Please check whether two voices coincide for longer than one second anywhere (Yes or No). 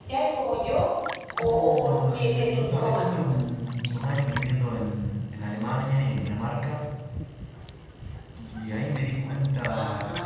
Yes